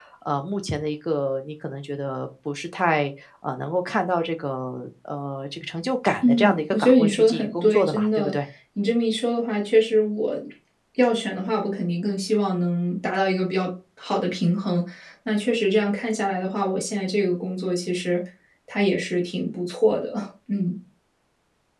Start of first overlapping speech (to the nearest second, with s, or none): 6 s